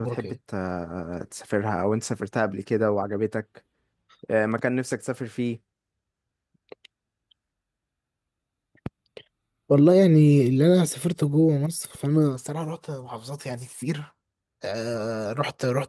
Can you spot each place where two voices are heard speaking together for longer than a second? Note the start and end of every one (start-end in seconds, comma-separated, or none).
none